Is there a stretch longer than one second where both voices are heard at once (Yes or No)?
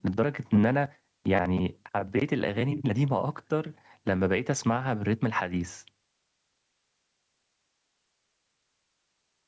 No